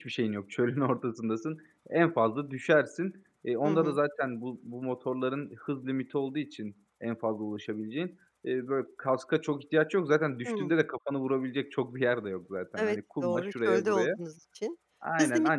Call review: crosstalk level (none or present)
present